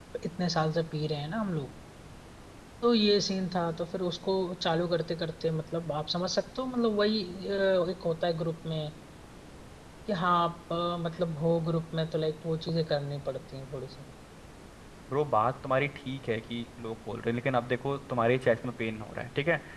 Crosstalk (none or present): none